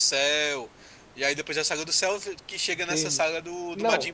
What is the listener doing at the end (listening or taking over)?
taking over